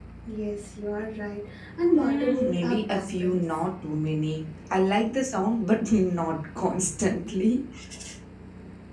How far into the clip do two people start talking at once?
1.9 s

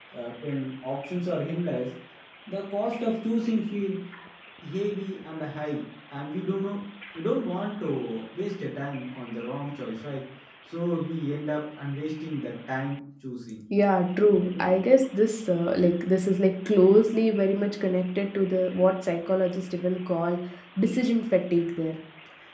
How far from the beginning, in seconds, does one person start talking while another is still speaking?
none

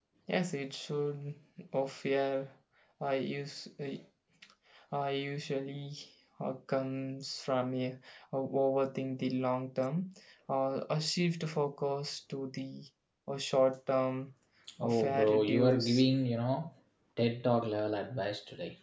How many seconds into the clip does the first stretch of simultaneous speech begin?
14.8 s

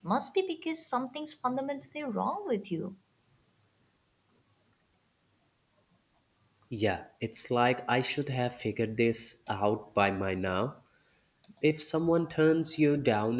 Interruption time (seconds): none

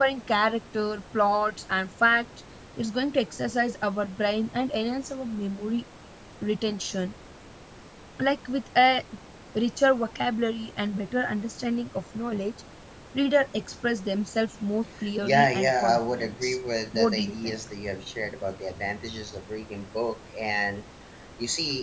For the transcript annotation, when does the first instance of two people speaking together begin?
15.0 s

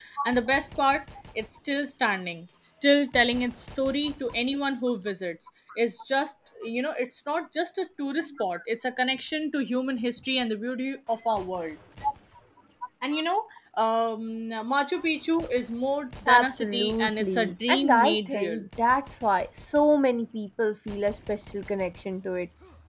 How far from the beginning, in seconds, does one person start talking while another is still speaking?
16.3 s

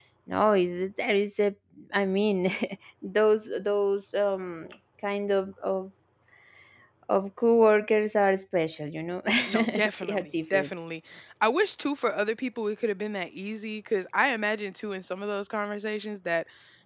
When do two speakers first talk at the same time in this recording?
9.5 s

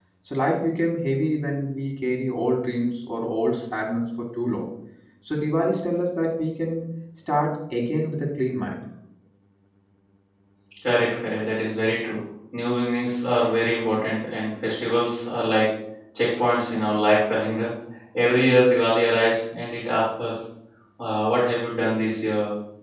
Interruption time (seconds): none

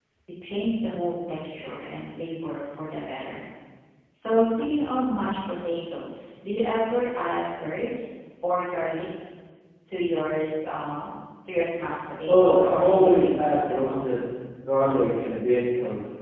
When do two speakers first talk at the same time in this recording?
12.3 s

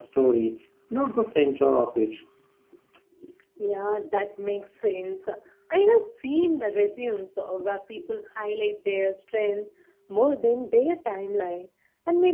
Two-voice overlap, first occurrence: none

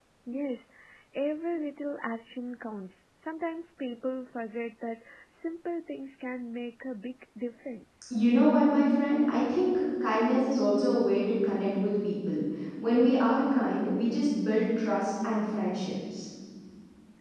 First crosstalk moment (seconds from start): none

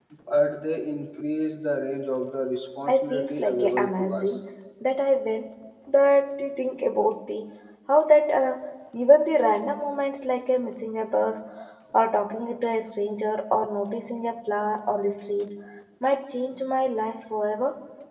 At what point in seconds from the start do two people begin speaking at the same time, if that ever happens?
2.9 s

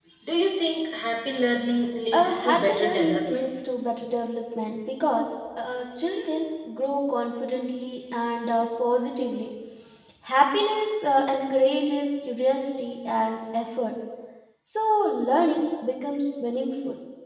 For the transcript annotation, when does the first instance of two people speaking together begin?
2.1 s

